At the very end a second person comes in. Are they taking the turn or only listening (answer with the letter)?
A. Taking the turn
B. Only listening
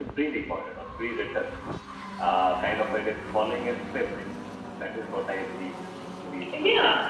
A